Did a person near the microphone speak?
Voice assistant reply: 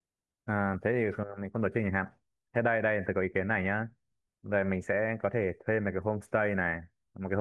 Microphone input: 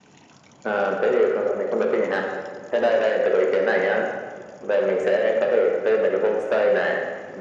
No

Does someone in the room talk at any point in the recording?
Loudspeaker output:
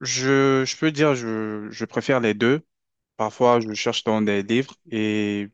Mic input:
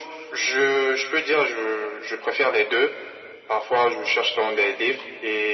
No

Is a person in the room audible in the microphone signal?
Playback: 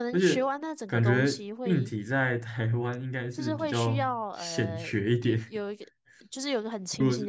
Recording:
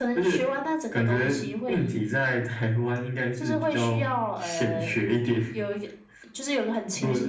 No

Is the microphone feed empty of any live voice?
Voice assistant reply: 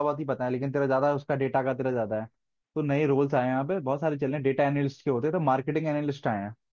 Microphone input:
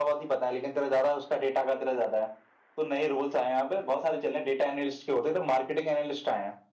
Yes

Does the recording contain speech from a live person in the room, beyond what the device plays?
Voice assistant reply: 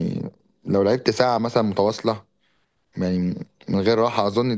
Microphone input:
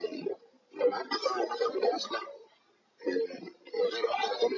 No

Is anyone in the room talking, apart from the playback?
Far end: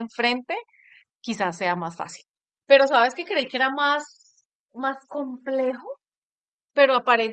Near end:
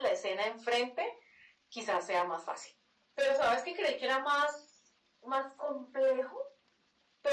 No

